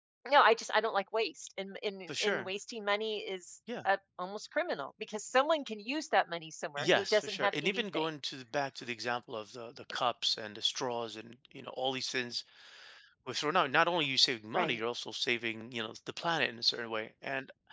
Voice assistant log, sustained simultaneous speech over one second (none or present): present